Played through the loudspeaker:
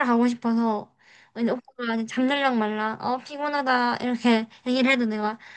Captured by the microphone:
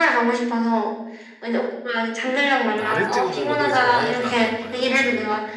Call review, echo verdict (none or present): present